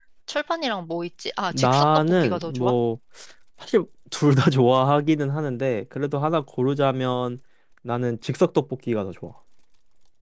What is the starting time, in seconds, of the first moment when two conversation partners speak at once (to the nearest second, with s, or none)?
2 s